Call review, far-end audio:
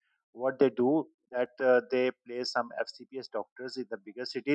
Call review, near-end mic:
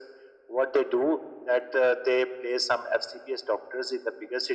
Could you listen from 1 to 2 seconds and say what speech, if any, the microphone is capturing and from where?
echo only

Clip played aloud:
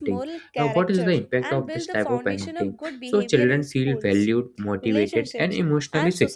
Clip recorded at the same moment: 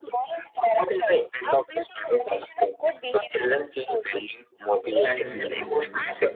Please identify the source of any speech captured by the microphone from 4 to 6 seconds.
both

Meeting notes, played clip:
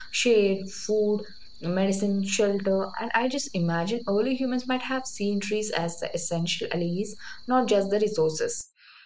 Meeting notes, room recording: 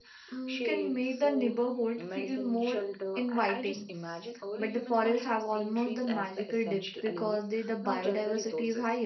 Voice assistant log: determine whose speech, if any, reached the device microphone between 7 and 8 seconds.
both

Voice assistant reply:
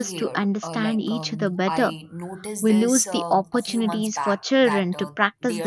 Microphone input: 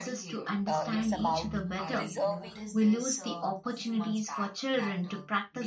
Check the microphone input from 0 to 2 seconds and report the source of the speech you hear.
both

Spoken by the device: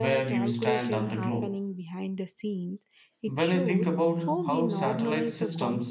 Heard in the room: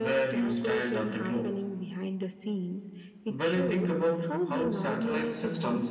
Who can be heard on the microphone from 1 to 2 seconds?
echo only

